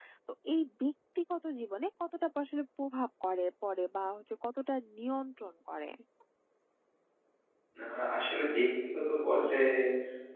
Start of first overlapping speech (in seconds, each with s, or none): none